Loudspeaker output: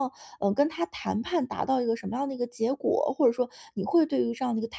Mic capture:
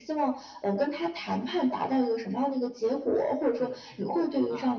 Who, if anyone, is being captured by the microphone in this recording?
both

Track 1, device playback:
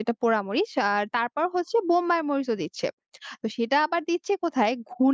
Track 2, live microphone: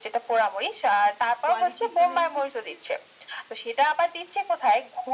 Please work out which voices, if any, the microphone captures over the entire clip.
both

